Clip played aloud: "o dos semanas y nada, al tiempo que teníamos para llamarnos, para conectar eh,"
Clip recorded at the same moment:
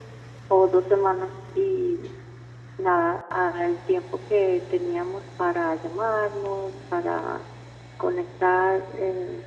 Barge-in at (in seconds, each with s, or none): none